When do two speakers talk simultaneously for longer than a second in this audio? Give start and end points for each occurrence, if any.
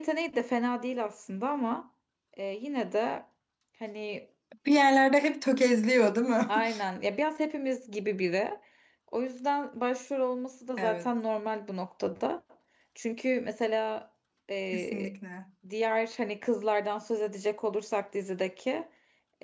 none

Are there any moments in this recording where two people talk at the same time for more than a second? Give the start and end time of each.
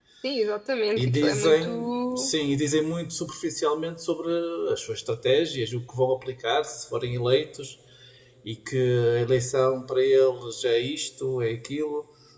1.0-2.3

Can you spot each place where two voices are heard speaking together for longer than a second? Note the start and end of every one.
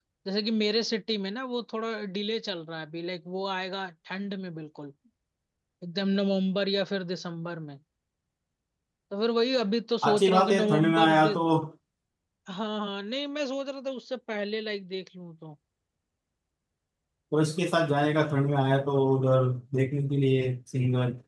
10.1-11.4

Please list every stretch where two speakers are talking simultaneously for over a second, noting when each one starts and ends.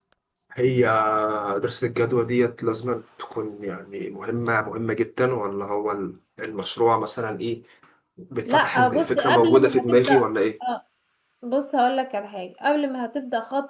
8.5-10.1

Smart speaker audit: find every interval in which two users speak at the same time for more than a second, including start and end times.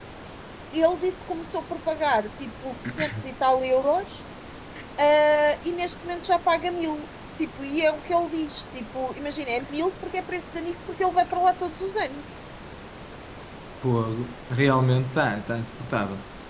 none

